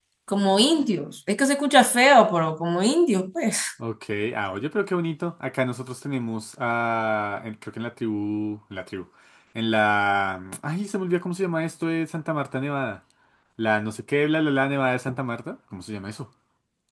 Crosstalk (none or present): none